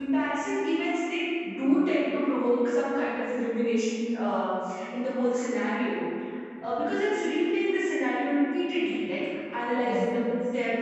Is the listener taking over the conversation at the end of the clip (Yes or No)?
No